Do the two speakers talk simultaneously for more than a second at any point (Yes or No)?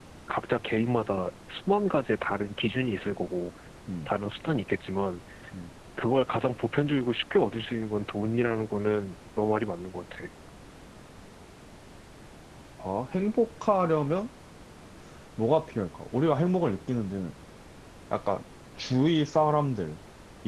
No